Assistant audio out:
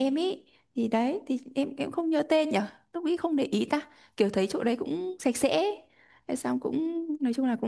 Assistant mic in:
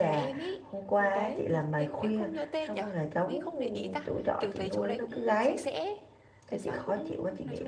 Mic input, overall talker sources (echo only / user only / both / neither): both